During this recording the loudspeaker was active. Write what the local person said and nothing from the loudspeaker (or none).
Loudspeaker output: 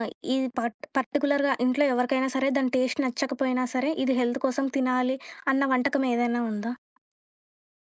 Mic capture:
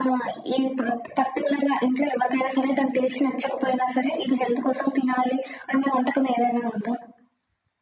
none